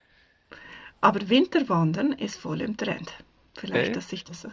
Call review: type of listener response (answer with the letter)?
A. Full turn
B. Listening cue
B